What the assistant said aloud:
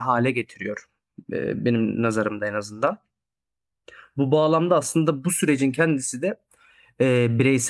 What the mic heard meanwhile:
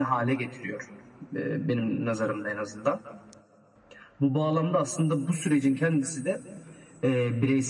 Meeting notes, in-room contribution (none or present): none